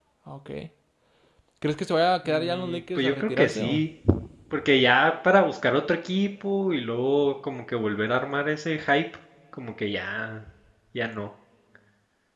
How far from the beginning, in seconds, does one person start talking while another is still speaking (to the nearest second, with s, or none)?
2 s